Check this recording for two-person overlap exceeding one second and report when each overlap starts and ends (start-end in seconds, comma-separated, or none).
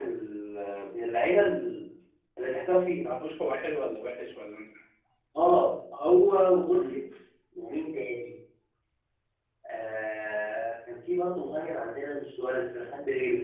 none